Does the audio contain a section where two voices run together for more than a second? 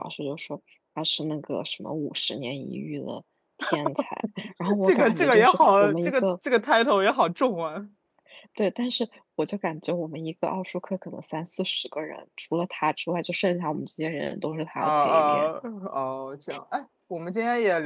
Yes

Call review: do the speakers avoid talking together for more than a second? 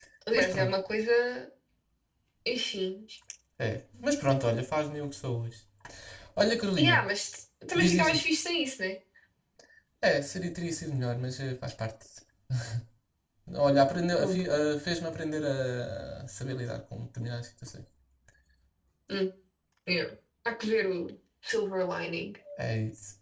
Yes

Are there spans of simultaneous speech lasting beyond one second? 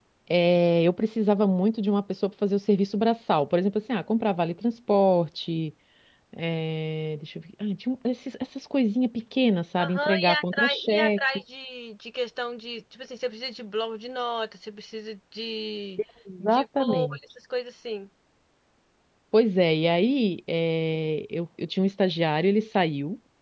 Yes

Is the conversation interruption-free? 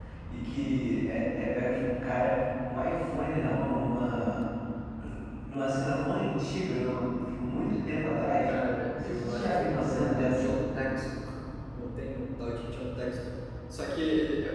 No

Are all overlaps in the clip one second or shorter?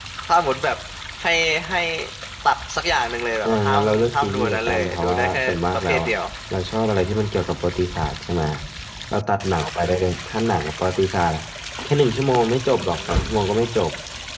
No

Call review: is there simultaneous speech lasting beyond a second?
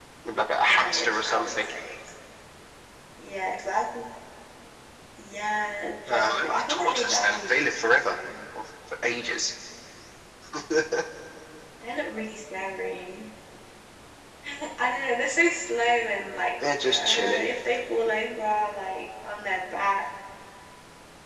Yes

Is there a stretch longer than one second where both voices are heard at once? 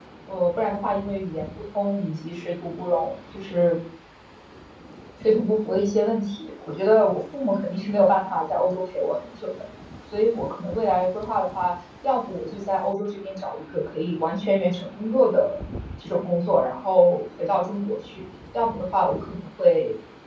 No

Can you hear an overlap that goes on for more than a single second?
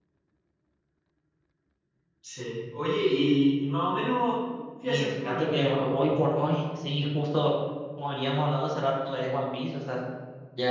Yes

